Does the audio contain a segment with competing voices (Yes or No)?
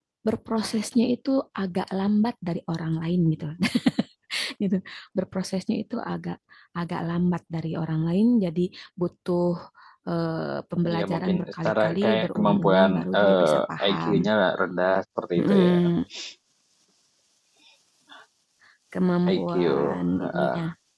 Yes